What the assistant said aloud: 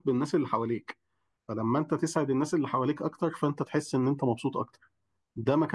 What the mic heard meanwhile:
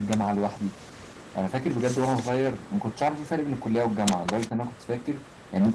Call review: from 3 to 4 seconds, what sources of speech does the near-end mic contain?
user only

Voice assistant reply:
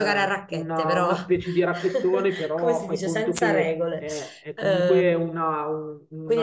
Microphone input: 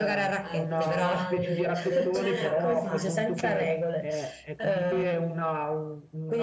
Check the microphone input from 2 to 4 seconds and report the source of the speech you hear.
both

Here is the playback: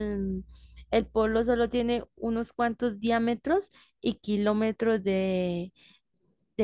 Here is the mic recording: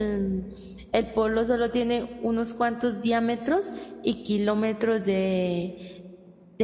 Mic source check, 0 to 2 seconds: echo only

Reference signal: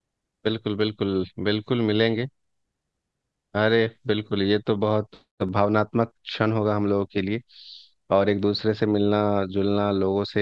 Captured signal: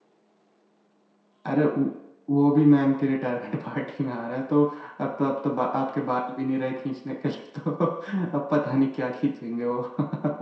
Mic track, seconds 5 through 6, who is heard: user only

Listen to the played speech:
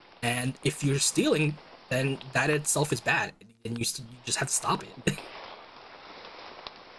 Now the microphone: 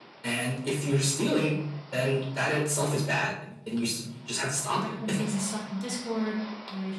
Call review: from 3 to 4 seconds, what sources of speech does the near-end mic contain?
echo only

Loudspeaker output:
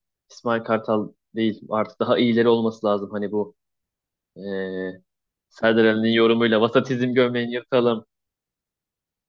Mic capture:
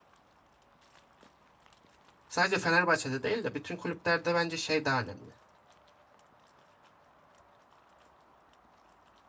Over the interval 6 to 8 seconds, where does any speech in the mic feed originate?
neither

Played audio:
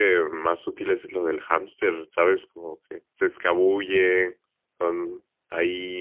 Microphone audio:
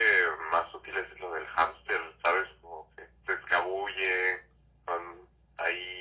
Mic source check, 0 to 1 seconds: echo only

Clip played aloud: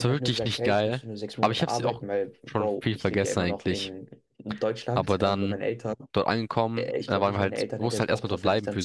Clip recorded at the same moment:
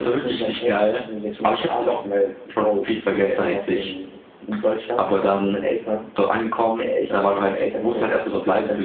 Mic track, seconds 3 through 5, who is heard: echo only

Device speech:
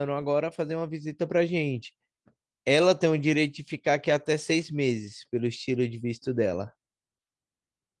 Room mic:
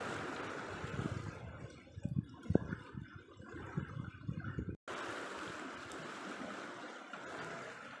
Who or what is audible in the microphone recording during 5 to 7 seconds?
neither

